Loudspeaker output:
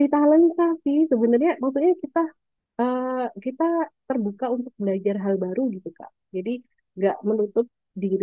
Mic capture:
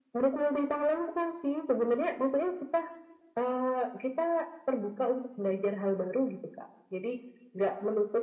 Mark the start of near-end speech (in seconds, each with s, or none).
none